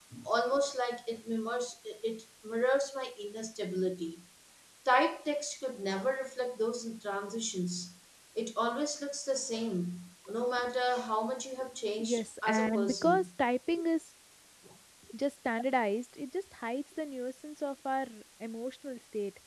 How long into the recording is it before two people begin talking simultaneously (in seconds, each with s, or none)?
12.0 s